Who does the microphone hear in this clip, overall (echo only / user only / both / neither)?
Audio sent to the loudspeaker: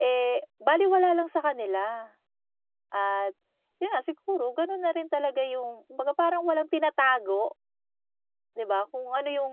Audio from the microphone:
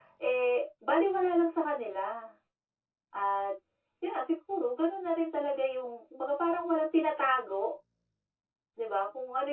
echo only